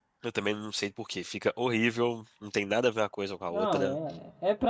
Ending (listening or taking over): taking over